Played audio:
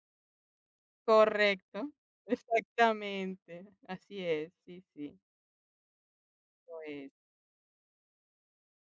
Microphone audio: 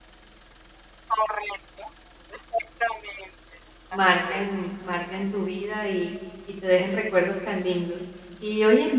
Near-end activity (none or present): present